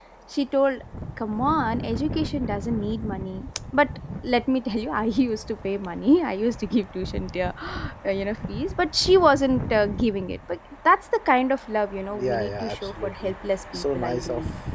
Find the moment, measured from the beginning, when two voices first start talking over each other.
12.1 s

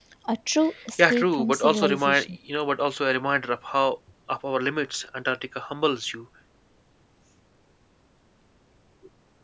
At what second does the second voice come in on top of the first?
1.0 s

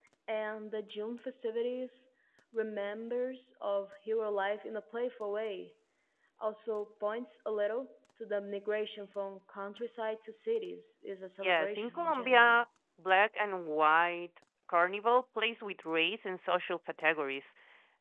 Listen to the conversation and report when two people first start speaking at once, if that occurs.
11.4 s

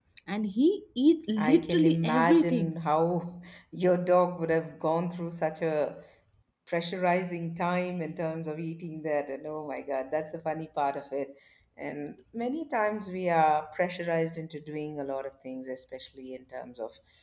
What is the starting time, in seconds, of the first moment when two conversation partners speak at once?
1.4 s

